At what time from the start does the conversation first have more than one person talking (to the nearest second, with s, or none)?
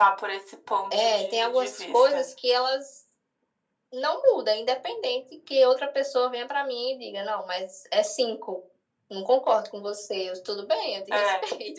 1 s